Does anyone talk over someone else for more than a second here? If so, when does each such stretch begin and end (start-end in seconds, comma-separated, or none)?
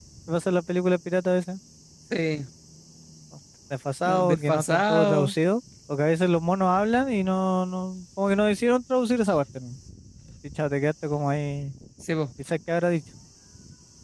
4.0-5.3